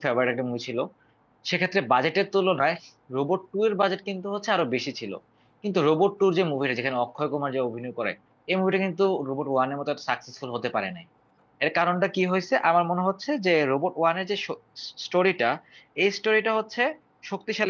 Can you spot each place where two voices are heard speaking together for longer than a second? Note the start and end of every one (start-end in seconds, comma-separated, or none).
none